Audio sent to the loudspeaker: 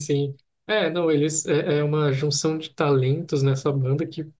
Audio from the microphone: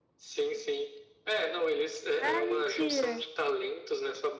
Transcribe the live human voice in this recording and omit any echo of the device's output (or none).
Ah, mentira!